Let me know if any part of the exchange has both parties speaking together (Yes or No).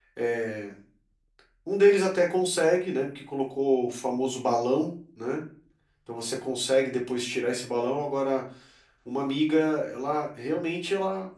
No